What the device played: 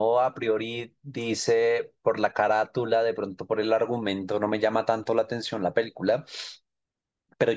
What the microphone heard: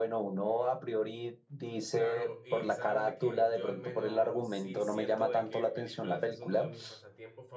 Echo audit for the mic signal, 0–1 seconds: echo only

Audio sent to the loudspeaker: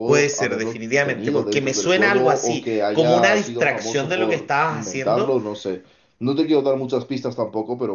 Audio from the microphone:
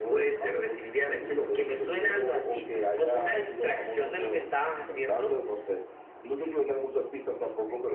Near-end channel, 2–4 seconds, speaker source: echo only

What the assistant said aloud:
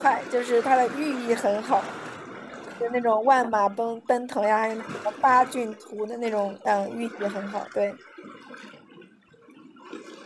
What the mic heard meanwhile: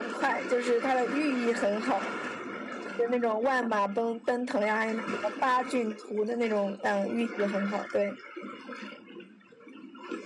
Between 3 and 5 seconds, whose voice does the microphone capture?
echo only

